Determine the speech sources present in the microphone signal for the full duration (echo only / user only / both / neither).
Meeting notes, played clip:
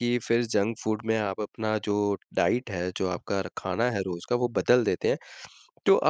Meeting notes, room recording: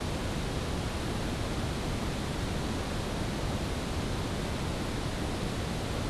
neither